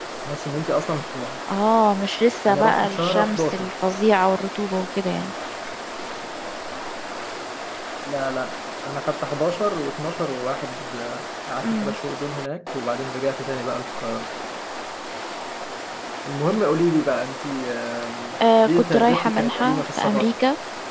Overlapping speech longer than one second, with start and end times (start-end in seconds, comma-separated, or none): 2.5-3.7, 18.6-20.3